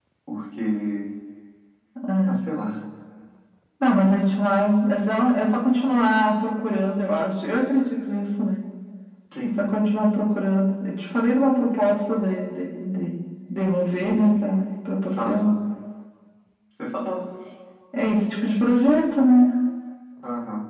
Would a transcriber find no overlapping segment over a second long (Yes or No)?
Yes